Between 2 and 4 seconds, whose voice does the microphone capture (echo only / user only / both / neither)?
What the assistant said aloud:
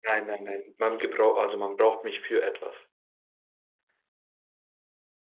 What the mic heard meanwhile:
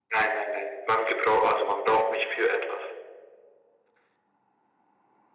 echo only